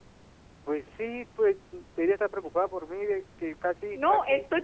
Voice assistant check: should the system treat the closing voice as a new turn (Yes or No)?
Yes